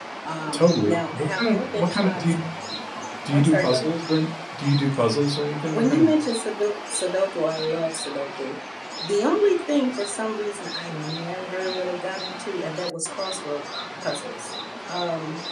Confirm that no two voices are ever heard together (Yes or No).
No